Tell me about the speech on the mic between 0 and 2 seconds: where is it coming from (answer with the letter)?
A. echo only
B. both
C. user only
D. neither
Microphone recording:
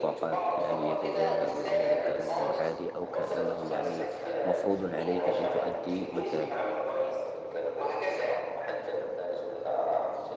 B